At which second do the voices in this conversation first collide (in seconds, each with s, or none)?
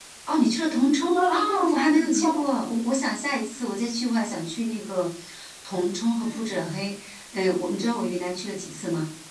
1.1 s